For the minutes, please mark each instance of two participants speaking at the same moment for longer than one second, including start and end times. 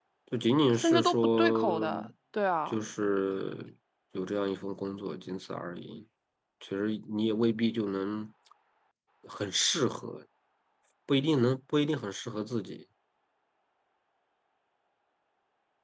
0.7-2.0

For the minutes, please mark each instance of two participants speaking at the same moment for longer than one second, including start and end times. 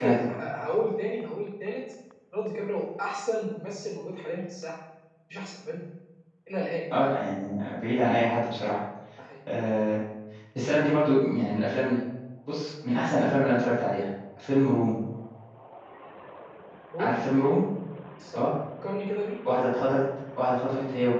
none

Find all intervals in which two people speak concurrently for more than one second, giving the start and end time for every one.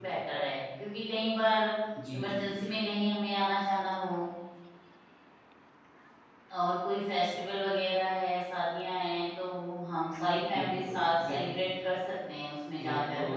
10.5-11.8

